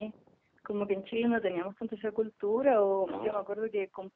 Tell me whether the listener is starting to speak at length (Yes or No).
No